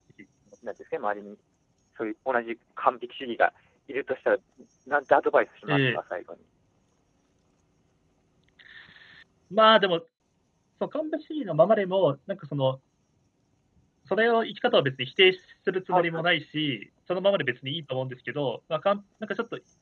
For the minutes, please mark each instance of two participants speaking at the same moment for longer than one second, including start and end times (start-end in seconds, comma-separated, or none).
none